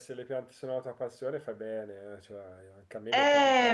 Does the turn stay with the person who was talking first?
No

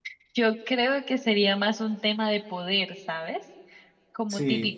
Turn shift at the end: No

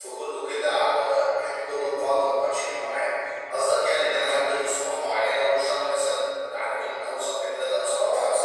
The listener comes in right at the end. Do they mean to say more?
Yes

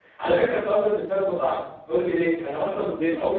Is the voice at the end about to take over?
No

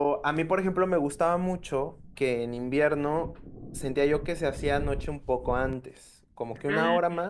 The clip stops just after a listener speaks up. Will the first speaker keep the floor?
Yes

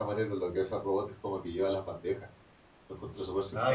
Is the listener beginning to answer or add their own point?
Yes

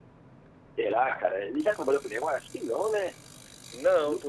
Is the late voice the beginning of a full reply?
Yes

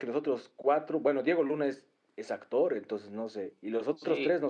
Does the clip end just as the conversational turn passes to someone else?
Yes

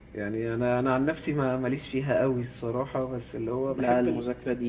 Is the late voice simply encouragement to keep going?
No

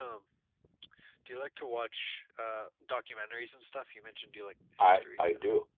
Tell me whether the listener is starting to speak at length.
Yes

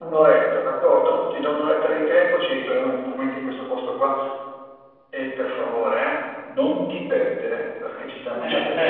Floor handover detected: Yes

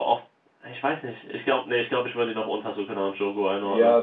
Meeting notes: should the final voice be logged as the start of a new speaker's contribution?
Yes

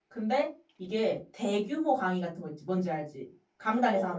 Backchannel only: No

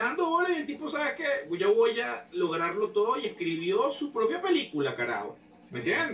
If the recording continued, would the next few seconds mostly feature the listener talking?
No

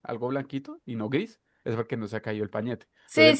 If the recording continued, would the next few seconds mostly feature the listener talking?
Yes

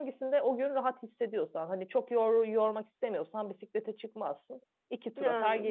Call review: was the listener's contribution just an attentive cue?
No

